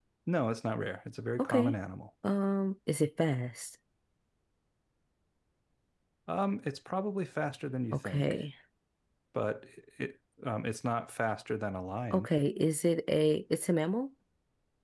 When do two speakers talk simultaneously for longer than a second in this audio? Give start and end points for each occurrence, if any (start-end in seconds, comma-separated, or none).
none